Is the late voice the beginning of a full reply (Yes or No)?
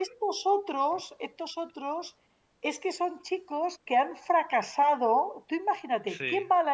No